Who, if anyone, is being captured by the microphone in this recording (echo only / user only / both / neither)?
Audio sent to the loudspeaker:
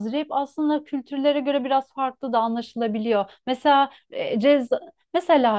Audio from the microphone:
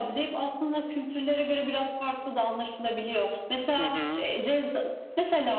both